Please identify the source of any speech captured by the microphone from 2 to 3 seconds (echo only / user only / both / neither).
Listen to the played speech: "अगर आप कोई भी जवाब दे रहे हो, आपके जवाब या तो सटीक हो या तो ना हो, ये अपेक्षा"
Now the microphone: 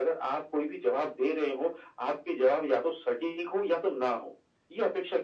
echo only